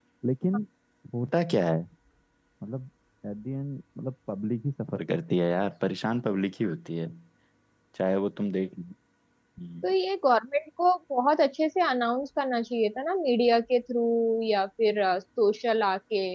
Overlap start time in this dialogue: none

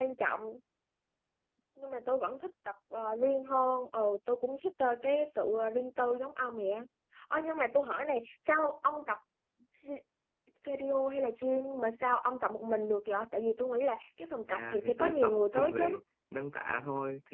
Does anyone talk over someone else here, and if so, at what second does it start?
14.5 s

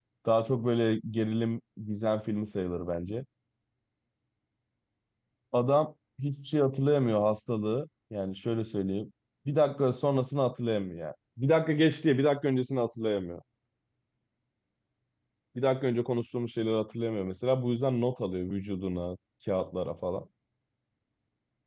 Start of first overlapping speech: none

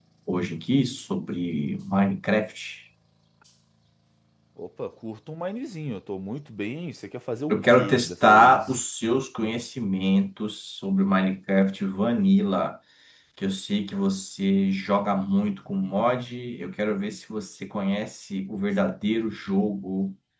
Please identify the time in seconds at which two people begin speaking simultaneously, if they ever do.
7.5 s

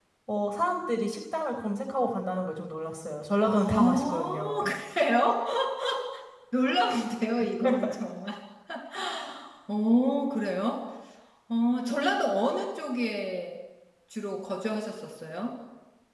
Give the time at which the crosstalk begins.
3.4 s

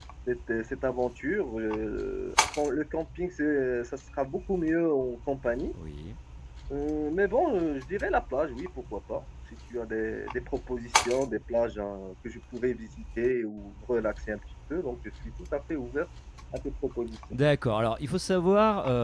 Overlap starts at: none

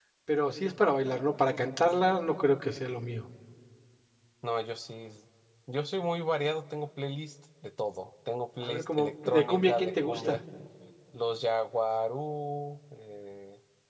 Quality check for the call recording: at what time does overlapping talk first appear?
8.6 s

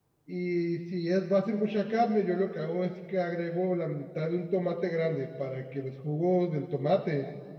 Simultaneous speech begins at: none

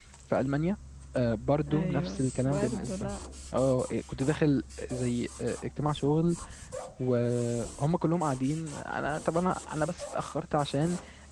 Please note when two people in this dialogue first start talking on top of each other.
1.7 s

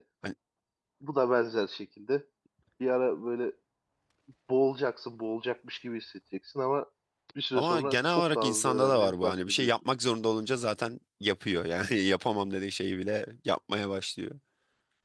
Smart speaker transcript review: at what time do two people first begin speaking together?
7.5 s

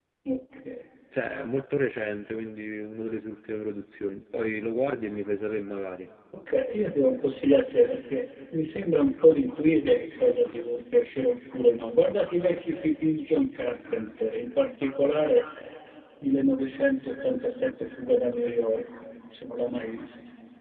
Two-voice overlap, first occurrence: none

